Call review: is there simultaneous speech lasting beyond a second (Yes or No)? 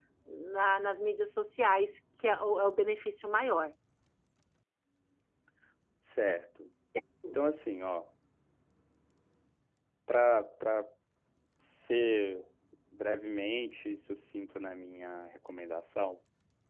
No